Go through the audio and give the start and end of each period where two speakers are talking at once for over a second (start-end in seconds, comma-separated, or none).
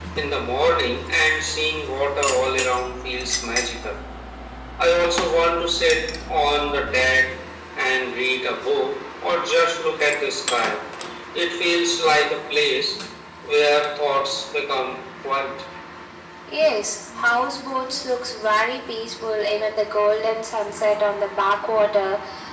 none